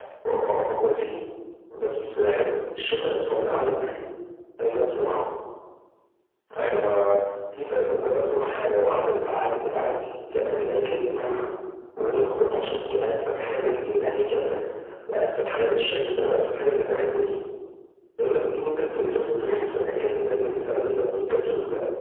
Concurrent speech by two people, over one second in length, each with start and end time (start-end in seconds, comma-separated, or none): none